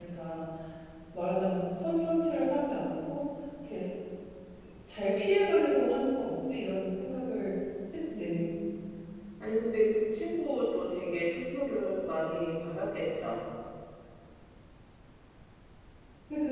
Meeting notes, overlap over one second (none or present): none